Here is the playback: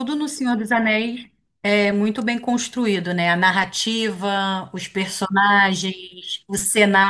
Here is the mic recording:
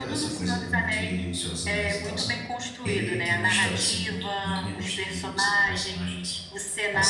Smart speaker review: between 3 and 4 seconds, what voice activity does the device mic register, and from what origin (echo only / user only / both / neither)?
both